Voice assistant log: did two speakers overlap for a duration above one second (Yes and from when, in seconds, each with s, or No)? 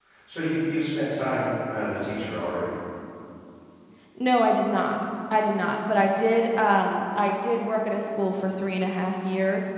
No